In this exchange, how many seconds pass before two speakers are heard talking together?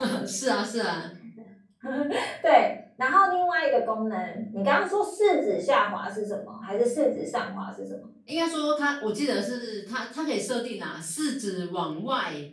none

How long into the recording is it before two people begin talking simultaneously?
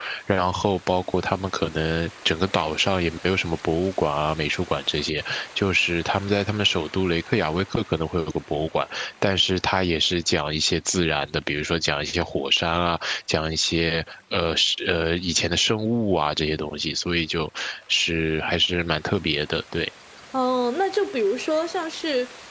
none

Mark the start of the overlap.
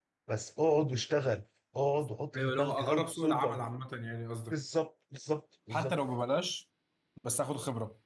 2.4 s

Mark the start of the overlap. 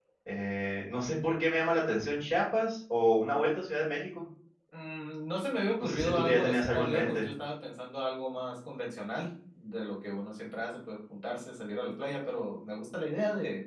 5.8 s

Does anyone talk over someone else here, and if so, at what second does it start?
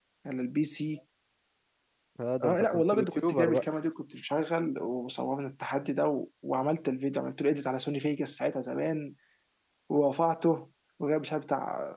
2.4 s

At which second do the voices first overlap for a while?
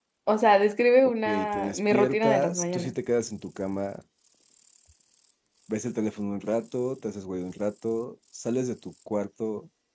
1.2 s

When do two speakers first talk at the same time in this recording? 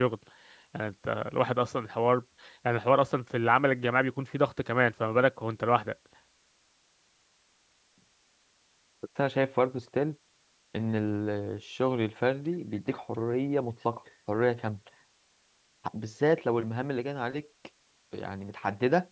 none

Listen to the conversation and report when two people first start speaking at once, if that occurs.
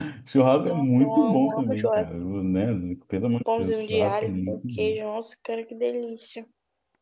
0.6 s

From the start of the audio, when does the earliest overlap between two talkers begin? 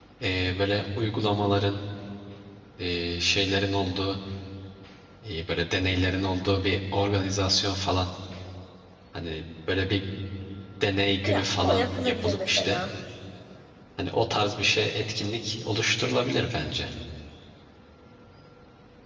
11.3 s

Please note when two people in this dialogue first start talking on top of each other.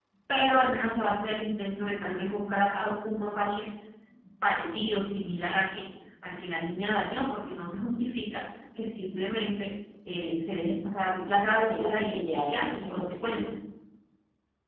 11.5 s

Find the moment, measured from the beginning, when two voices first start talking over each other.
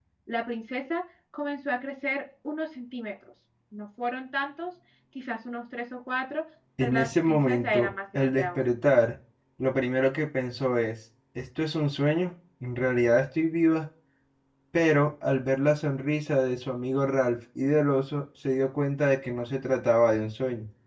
6.8 s

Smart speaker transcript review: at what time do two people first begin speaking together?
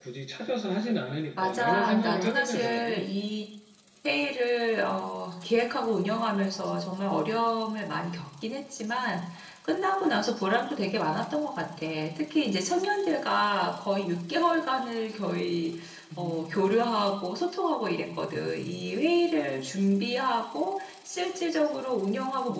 1.3 s

